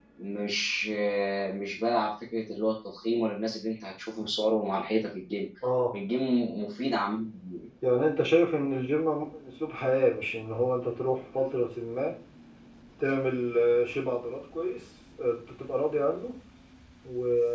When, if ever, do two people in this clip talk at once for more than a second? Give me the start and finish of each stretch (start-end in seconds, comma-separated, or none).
none